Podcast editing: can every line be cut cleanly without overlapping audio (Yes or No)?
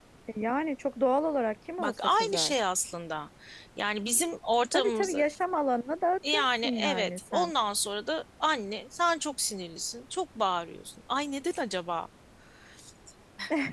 No